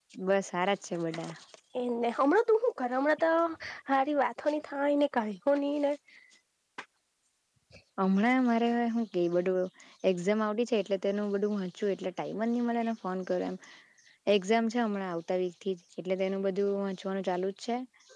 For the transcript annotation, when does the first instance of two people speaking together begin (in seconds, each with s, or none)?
none